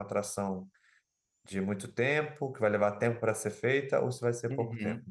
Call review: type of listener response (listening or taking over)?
taking over